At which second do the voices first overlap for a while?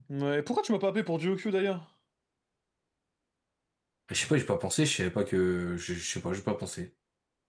none

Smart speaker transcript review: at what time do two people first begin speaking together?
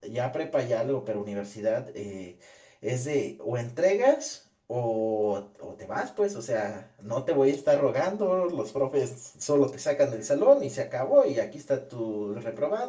none

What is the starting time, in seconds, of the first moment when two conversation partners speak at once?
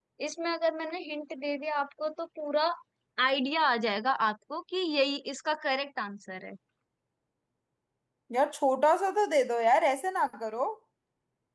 none

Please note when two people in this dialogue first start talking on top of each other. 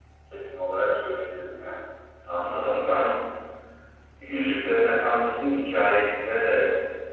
none

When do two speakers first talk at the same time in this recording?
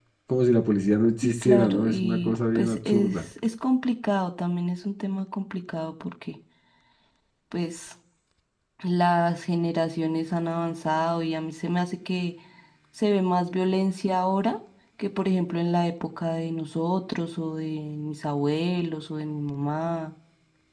1.2 s

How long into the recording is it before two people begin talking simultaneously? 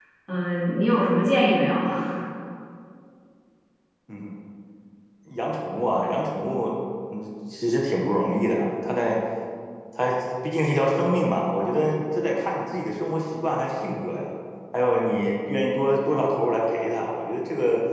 none

